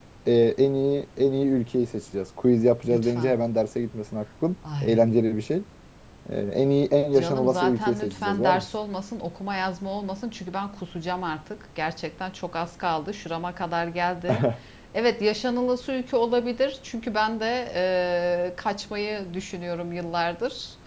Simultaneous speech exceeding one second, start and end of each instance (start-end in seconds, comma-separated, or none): 7.2-8.7